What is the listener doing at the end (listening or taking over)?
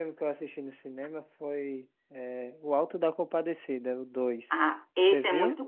taking over